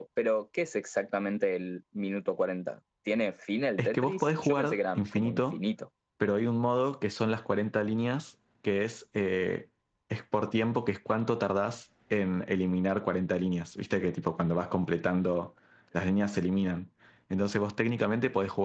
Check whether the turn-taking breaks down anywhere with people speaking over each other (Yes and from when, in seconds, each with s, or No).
Yes, from 3.8 s